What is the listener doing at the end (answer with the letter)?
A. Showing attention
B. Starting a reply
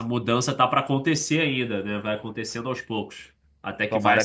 B